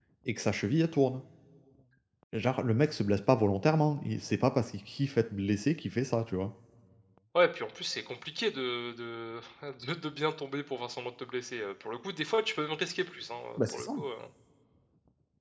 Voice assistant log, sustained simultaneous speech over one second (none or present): none